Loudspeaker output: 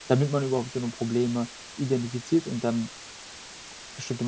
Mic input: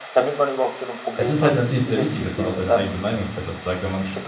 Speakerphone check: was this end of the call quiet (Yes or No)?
No